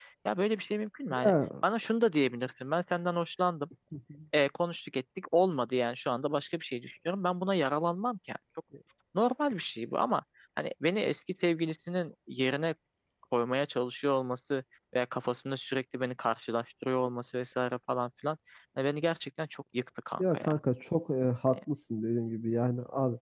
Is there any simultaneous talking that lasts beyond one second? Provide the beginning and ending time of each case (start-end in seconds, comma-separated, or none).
none